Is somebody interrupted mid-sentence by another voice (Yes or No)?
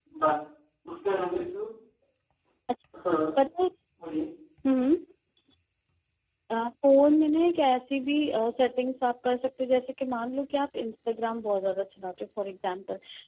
No